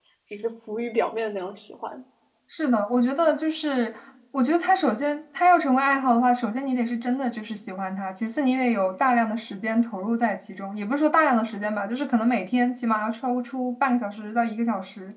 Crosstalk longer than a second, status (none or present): none